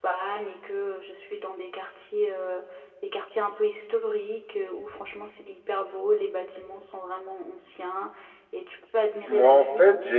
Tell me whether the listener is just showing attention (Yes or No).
No